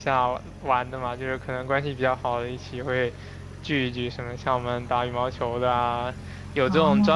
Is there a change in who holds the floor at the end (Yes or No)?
No